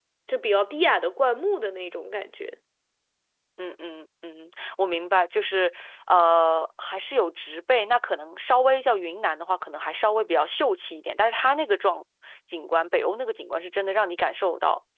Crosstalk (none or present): none